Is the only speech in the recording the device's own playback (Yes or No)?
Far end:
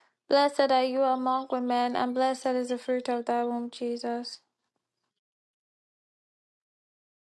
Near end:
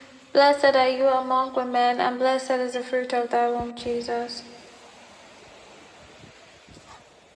Yes